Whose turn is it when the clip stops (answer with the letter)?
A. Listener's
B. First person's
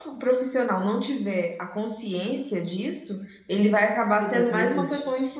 B